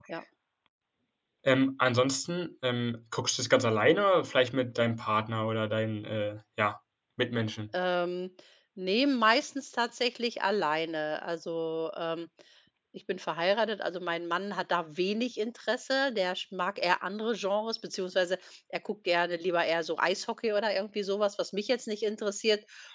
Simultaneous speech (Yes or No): No